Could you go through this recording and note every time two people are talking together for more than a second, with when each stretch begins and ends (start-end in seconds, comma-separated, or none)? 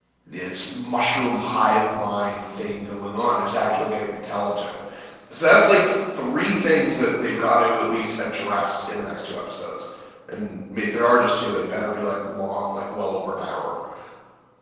none